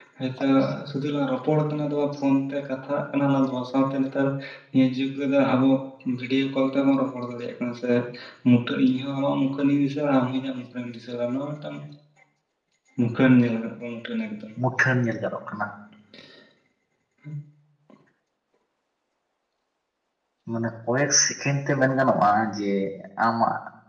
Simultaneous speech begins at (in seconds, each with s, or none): none